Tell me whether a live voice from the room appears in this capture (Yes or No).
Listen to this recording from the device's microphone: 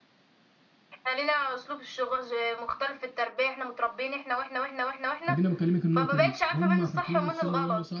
Yes